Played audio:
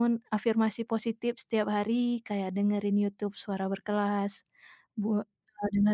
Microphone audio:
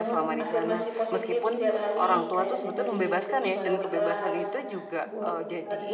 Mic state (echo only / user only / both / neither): both